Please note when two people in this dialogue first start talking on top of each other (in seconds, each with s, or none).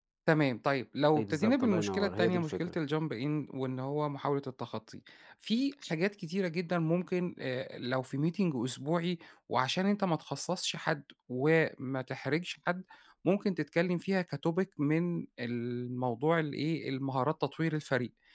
1.1 s